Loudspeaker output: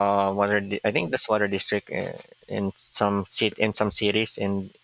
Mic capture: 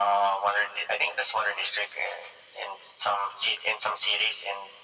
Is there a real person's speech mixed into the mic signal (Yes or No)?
No